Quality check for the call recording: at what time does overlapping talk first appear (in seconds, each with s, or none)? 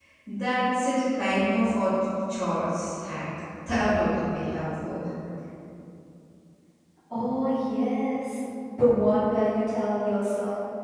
none